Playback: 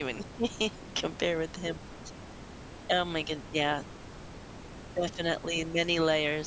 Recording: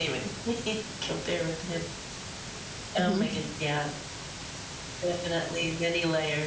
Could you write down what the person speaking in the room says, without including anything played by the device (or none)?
Mhm.